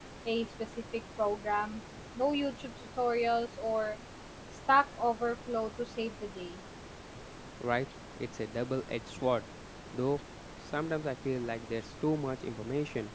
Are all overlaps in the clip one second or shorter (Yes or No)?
Yes